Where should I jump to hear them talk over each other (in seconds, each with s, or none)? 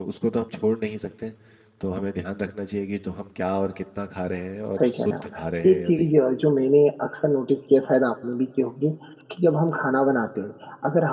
4.8 s